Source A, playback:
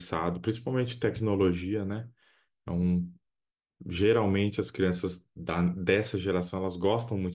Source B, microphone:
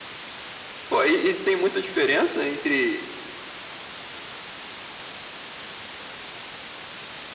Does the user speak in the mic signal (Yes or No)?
Yes